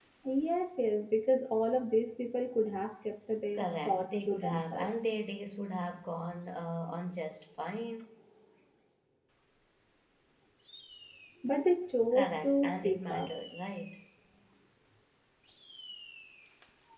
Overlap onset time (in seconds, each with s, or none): 3.5 s